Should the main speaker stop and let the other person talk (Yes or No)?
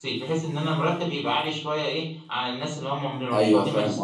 Yes